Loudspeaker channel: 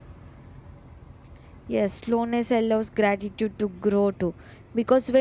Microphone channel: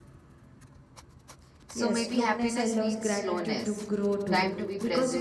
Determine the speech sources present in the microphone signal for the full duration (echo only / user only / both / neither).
both